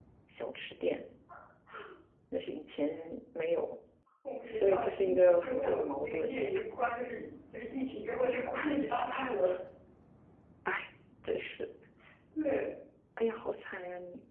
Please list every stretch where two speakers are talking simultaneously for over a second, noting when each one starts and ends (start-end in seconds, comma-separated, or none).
4.5-6.4